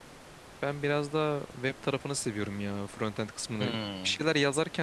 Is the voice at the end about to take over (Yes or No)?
No